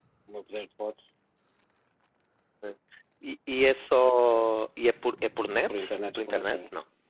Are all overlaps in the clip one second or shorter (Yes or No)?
Yes